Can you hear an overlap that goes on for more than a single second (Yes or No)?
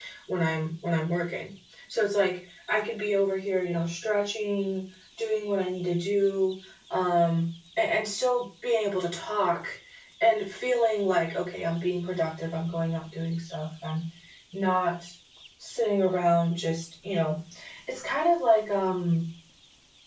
No